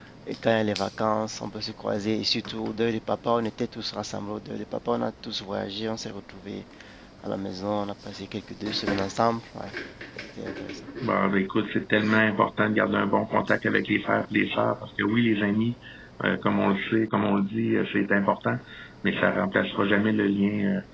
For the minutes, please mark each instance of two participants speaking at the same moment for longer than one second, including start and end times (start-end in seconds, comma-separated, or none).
none